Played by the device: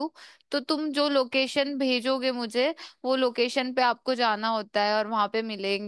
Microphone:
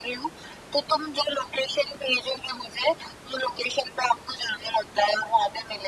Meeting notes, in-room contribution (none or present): none